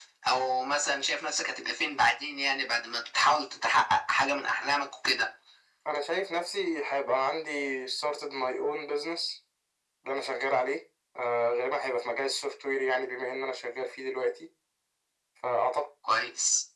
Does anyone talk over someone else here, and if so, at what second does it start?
none

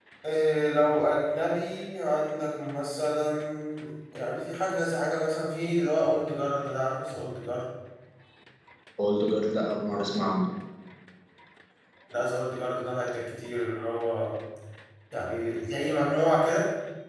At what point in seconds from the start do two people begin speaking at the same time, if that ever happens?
none

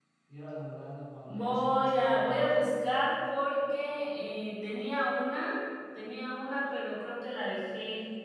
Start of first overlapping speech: 1.2 s

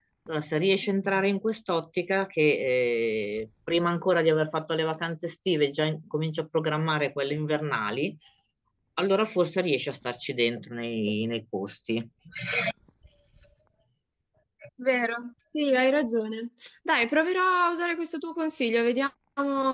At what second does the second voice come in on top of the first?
none

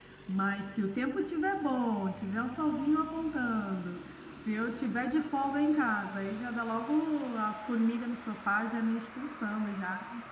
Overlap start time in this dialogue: none

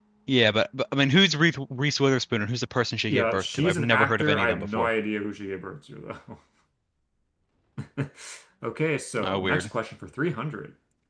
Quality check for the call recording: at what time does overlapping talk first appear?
3.1 s

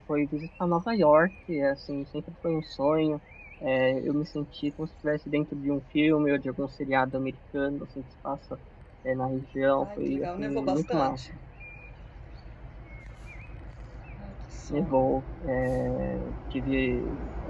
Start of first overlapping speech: 10.0 s

